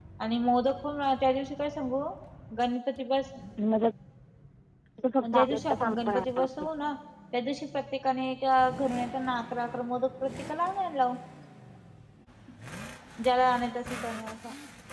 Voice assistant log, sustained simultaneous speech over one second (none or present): present